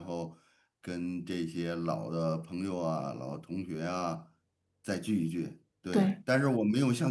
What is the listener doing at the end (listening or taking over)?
listening